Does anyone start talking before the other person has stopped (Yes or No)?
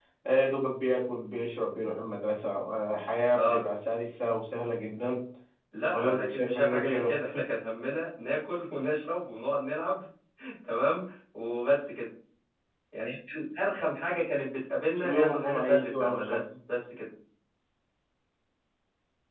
Yes